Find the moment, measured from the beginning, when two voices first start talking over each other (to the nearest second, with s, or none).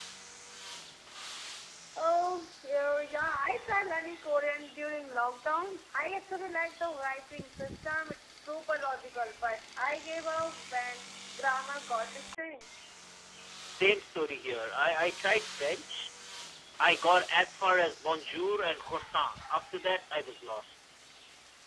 none